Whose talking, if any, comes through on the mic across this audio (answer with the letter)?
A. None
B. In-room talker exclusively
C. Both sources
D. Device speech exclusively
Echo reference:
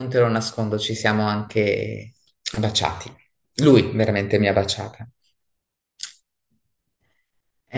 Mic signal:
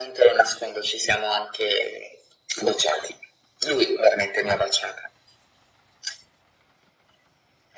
D